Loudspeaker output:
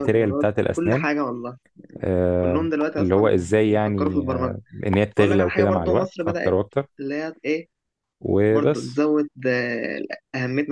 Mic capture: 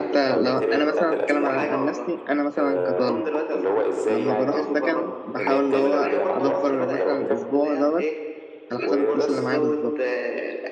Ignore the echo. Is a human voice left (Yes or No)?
Yes